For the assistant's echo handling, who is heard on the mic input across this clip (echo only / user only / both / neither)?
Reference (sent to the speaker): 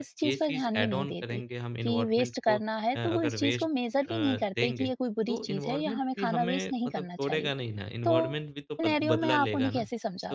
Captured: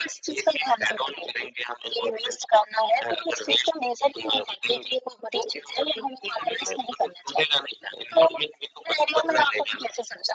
echo only